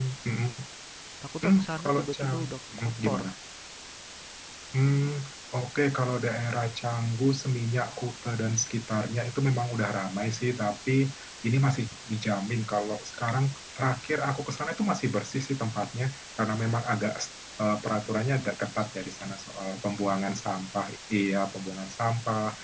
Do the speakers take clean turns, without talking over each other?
No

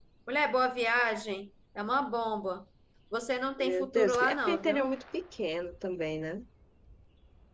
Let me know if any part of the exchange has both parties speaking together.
Yes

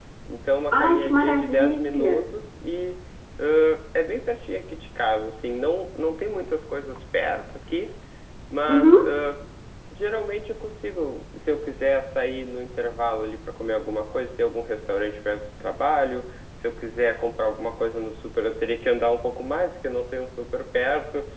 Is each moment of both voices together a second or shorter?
No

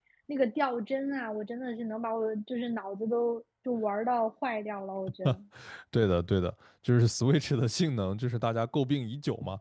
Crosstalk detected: No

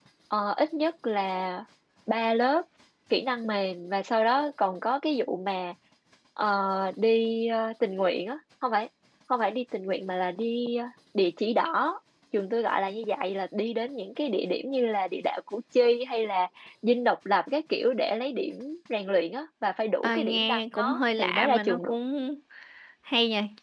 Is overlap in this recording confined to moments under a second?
No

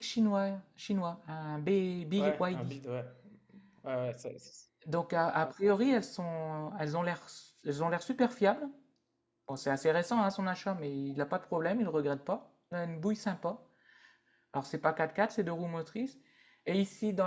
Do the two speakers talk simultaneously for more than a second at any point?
No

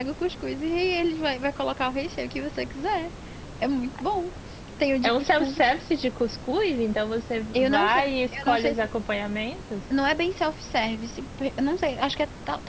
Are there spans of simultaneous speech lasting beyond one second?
Yes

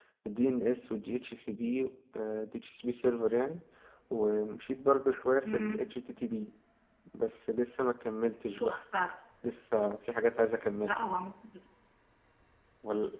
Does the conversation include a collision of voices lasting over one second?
No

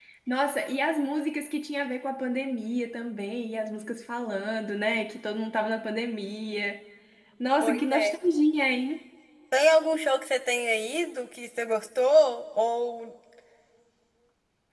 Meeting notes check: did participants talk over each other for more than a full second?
No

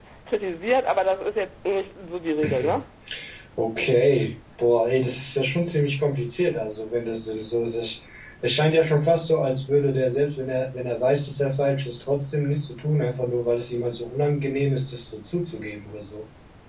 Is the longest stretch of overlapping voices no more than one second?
Yes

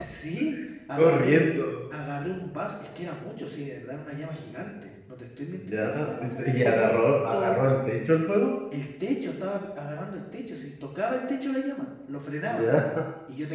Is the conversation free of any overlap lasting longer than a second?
No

